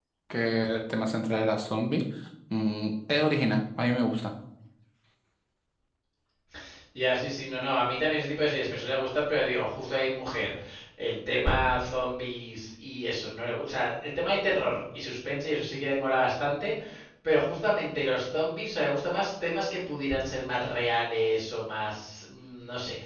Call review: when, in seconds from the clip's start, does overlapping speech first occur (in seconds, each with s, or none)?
none